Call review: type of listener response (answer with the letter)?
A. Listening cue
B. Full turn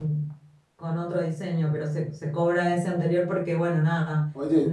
B